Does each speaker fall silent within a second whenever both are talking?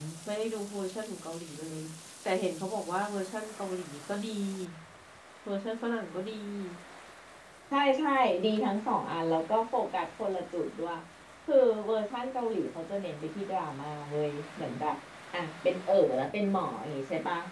Yes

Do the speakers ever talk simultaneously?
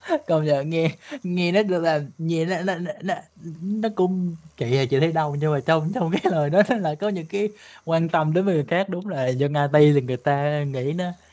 No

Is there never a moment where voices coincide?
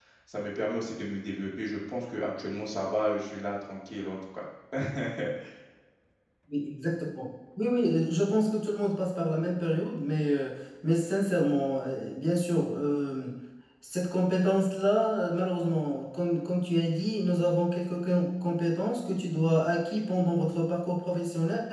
Yes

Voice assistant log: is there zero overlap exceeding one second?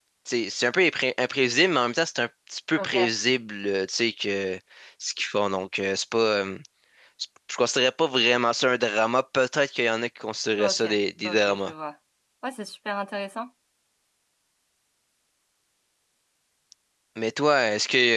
Yes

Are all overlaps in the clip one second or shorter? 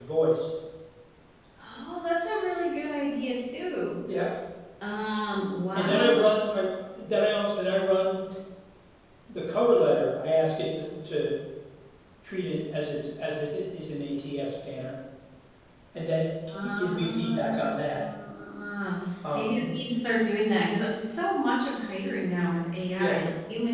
No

